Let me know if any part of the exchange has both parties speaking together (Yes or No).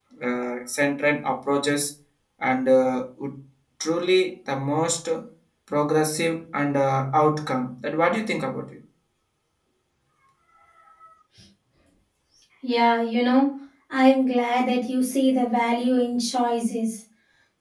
No